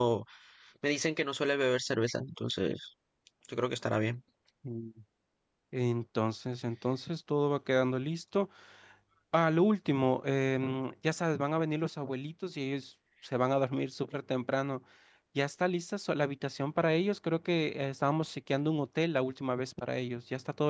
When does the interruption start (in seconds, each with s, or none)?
none